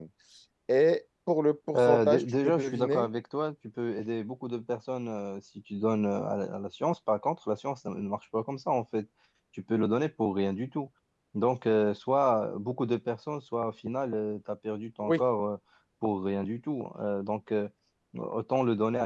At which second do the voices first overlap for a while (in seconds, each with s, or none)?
1.7 s